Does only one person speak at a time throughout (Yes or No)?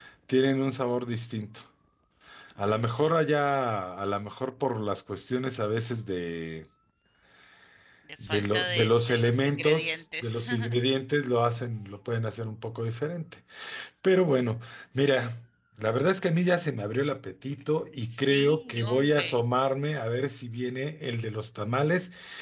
No